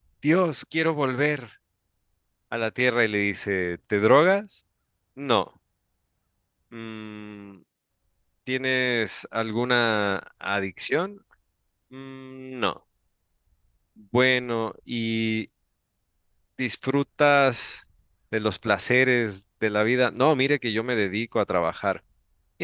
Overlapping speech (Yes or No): No